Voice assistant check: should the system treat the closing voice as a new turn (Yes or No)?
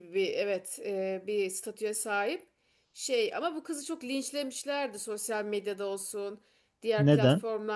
No